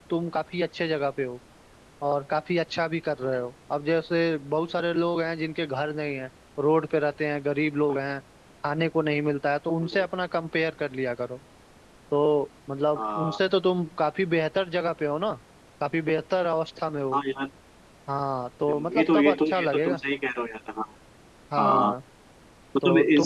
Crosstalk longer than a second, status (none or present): present